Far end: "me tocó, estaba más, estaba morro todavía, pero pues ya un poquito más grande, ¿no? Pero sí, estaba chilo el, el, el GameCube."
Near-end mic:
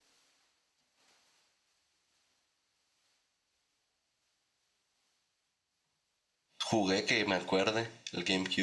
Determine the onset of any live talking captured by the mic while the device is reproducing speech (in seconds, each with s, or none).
6.6 s